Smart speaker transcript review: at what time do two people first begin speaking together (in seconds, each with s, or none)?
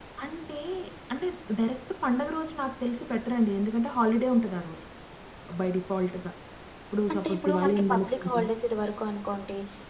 7.1 s